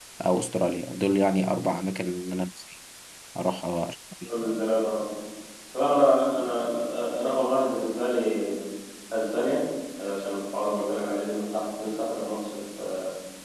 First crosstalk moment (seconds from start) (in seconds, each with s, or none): none